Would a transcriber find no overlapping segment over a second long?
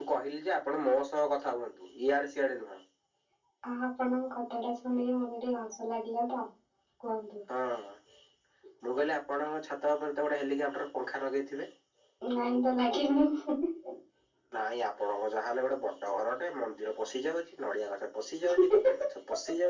Yes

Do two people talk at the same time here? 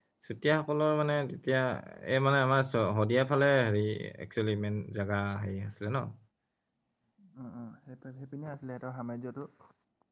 No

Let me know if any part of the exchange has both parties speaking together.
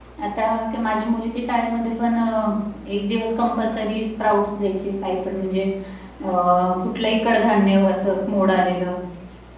No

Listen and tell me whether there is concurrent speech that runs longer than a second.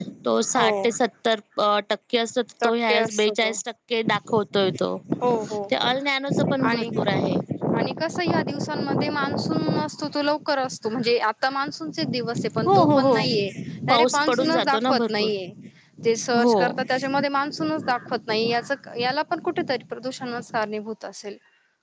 Yes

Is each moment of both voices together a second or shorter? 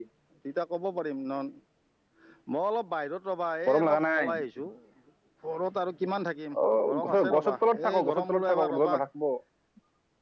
No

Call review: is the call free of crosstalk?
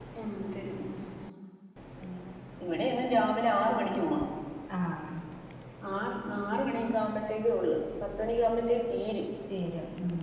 Yes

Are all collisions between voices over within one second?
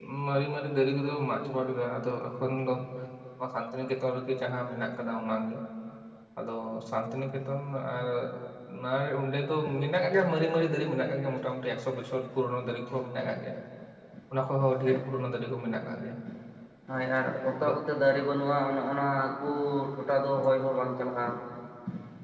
Yes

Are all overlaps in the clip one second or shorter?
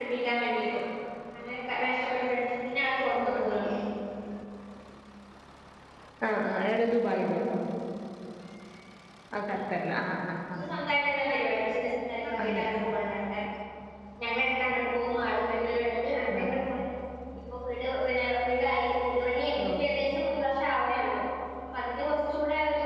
Yes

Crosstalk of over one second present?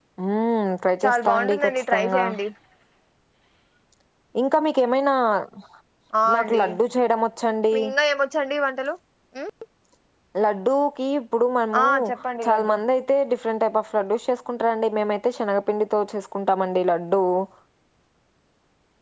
Yes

